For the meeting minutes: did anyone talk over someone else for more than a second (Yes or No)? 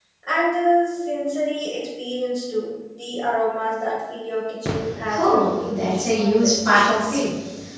Yes